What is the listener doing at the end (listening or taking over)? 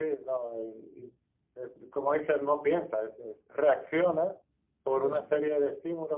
listening